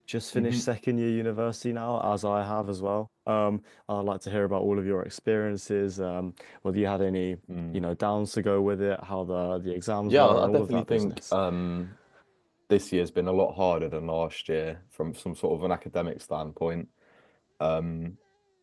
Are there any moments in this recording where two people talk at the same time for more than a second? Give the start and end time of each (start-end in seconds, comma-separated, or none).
10.0-11.3